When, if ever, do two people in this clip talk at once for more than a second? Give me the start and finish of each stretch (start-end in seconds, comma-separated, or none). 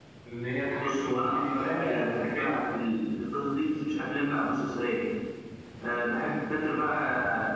0.8-2.6